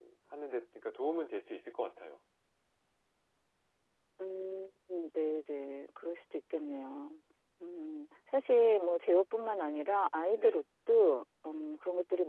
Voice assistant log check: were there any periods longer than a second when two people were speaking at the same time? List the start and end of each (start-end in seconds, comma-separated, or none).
none